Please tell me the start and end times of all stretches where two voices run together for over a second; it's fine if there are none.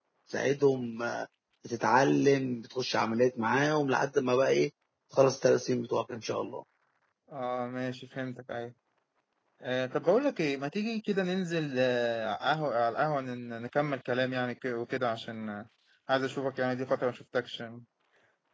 none

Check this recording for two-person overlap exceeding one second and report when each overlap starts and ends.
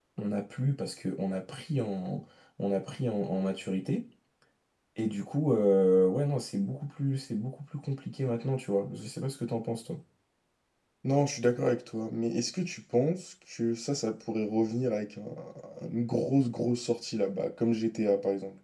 none

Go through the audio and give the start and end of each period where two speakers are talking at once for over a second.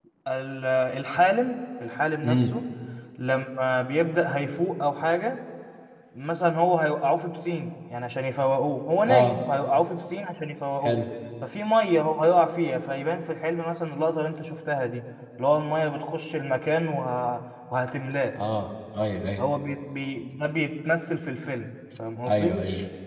none

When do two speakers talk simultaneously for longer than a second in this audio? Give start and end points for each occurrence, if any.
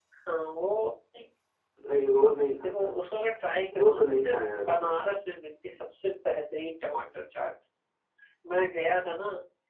3.7-4.9

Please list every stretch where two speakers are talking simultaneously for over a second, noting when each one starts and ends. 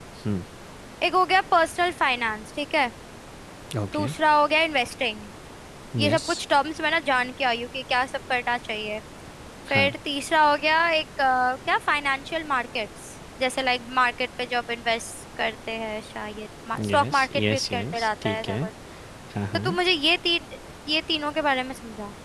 16.9-18.6

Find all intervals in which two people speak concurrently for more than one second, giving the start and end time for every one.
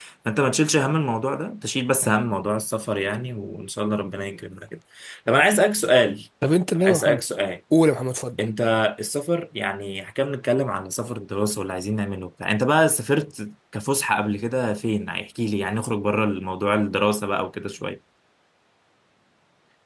none

